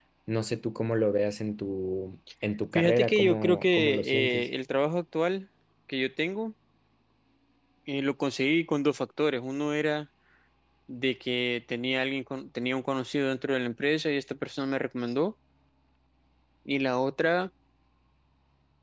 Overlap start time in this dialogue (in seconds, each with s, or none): 2.7 s